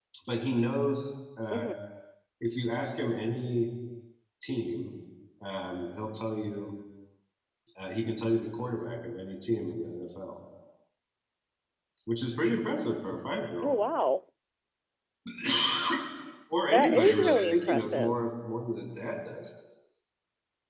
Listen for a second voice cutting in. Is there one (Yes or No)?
Yes